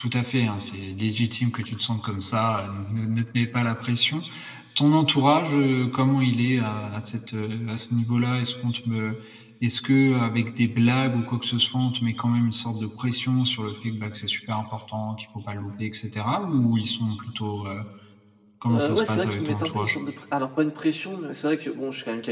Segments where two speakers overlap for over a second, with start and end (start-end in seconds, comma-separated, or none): 18.7-19.9